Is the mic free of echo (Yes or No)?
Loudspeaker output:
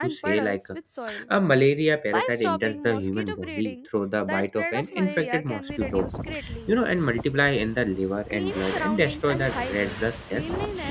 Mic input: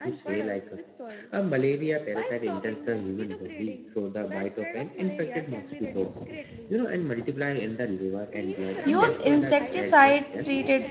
No